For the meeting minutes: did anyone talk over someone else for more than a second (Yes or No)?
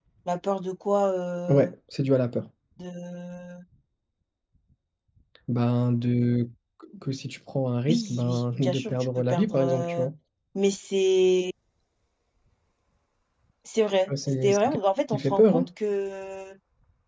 Yes